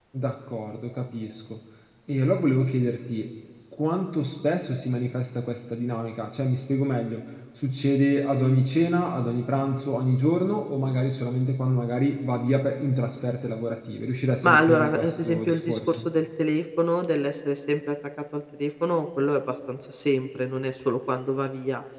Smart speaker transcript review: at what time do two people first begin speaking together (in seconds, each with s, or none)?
14.4 s